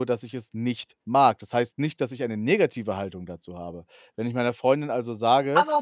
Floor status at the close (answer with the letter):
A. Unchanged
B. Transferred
B